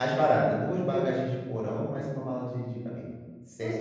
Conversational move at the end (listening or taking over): taking over